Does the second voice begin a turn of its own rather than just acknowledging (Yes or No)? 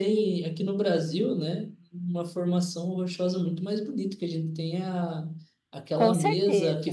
No